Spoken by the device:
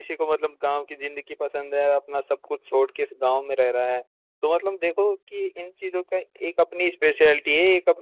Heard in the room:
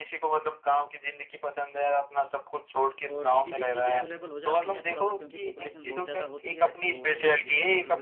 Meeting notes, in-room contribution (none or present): present